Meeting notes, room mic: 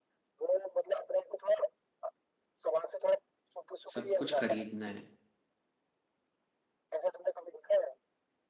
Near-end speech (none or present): present